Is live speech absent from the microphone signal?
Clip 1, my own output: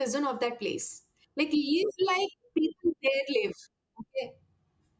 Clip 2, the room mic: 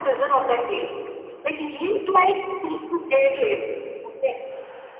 Yes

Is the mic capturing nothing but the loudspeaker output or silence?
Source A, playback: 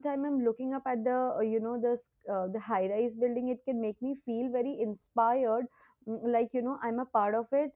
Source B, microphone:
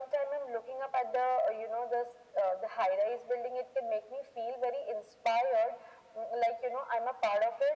Yes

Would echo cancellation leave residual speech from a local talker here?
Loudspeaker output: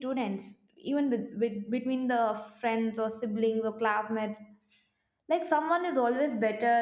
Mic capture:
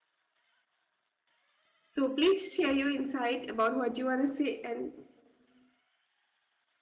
Yes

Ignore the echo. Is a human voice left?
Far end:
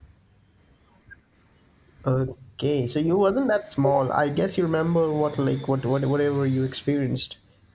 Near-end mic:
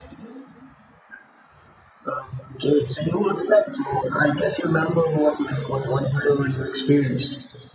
No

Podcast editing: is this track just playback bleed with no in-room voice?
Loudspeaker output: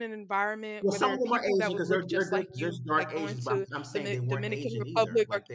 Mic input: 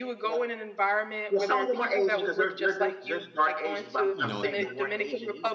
No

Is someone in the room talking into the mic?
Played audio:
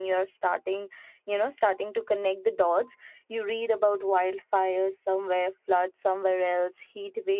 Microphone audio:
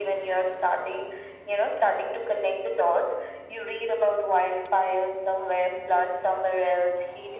No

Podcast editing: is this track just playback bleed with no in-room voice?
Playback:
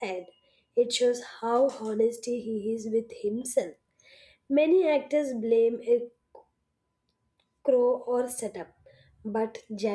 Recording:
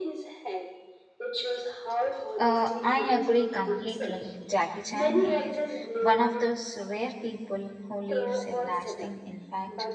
No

